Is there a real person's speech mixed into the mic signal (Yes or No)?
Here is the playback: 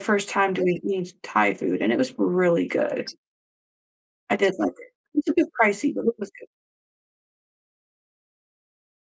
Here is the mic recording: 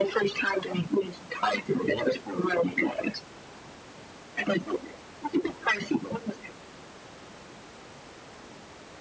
No